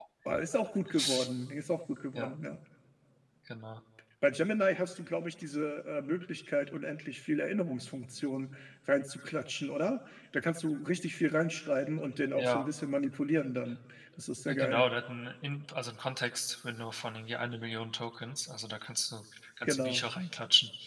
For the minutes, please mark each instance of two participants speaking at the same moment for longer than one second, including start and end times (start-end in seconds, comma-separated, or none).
none